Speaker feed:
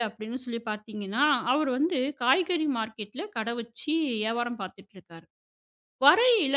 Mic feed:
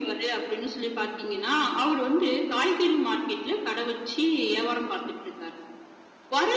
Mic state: echo only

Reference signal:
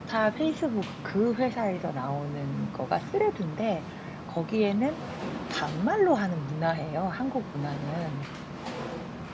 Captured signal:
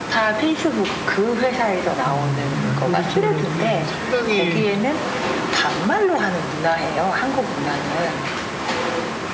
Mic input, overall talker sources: both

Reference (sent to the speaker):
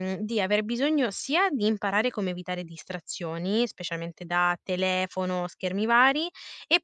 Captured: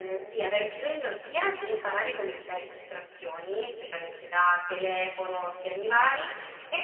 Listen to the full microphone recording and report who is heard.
echo only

